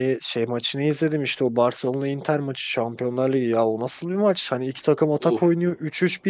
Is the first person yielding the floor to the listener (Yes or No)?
No